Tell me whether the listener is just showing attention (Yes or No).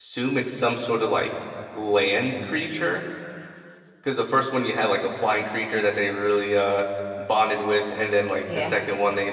Yes